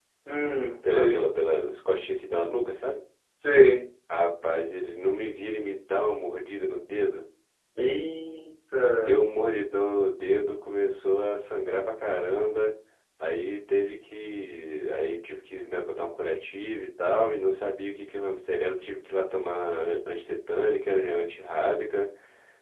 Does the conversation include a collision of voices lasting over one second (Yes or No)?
No